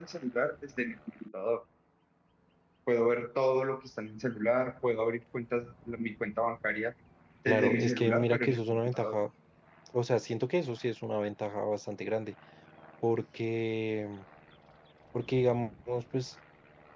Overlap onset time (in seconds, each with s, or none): 7.5 s